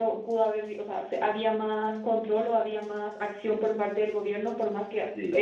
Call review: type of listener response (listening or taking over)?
listening